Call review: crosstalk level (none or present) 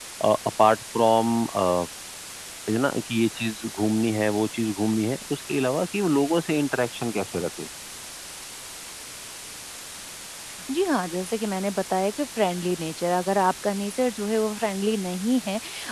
none